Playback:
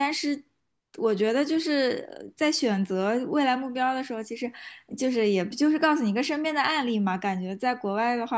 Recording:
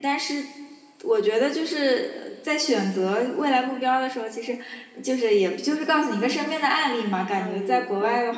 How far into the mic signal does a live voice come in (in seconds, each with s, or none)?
7.3 s